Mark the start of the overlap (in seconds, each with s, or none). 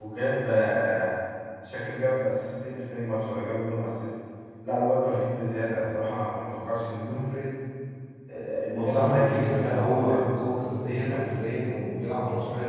8.8 s